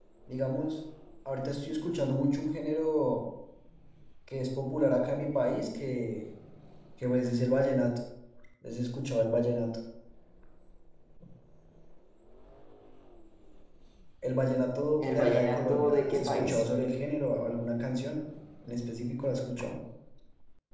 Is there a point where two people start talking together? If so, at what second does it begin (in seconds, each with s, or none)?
15.0 s